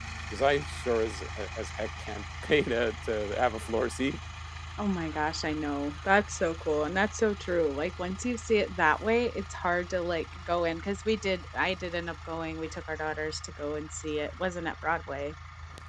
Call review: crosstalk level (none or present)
none